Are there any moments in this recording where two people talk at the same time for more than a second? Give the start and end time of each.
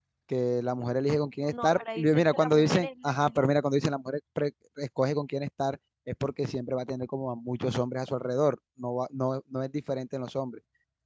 1.5-3.5

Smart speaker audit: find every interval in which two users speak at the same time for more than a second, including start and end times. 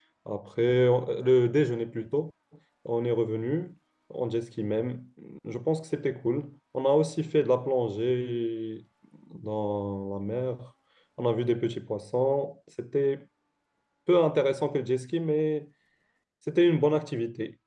none

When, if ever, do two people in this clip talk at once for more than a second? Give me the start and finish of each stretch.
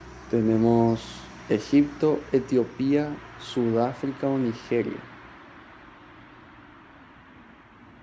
none

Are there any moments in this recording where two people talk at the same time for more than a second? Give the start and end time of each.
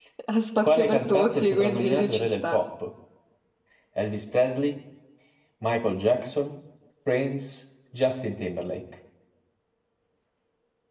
0.6-2.6

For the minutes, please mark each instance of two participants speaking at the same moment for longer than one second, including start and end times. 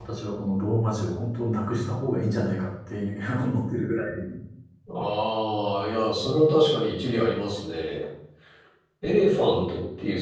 none

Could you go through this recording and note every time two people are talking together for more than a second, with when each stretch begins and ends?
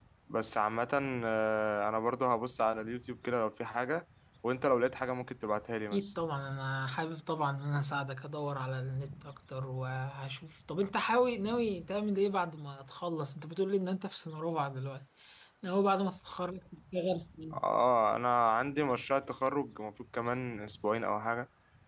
none

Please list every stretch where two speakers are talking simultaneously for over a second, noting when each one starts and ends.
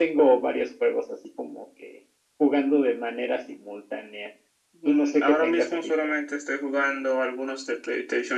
4.8-6.1

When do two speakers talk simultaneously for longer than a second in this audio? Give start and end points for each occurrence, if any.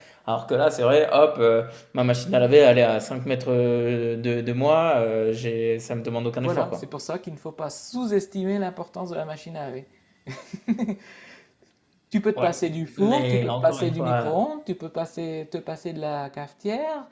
13.0-14.4

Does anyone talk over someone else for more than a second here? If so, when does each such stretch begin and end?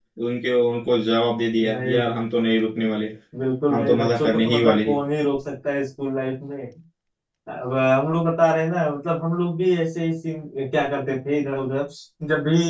3.7-5.0

